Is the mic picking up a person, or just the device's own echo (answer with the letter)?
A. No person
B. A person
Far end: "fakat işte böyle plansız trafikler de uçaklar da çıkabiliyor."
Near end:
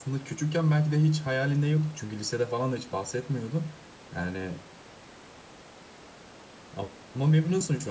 B